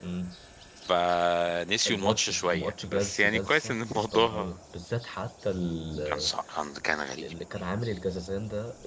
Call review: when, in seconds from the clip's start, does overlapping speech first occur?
1.8 s

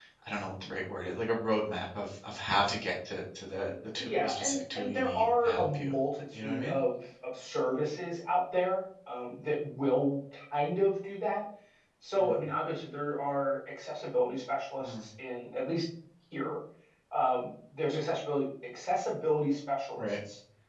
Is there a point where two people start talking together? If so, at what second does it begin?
4.0 s

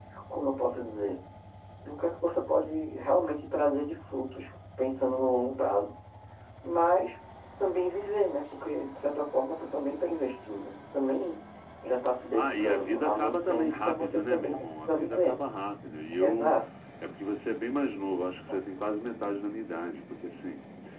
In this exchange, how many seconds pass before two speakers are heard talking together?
12.3 s

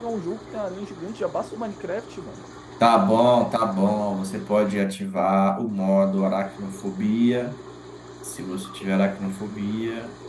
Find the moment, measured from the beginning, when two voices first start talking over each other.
none

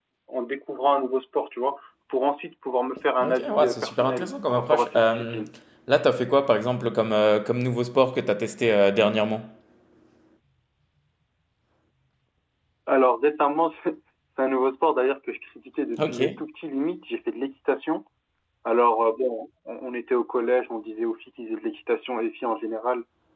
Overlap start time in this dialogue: 3.2 s

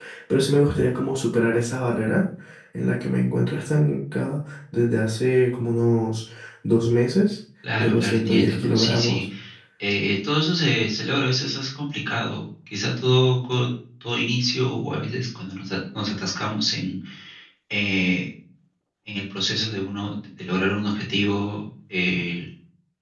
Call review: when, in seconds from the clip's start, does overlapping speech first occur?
7.6 s

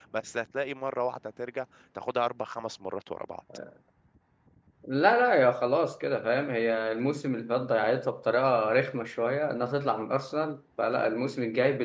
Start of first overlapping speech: none

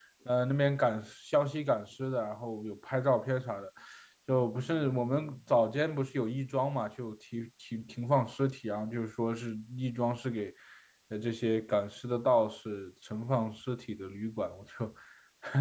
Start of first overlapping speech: none

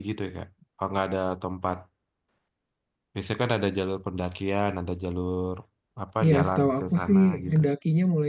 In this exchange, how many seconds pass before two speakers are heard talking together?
6.2 s

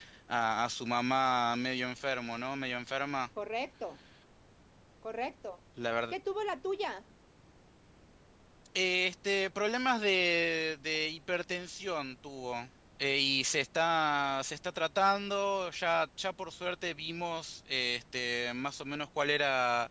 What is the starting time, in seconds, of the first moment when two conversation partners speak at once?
none

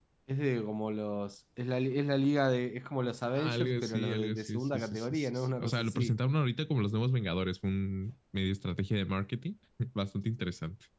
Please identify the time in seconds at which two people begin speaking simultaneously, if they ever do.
3.4 s

